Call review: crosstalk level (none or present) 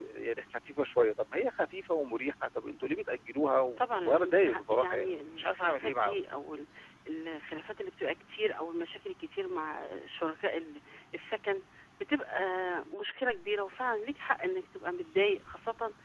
present